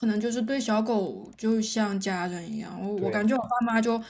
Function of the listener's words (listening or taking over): listening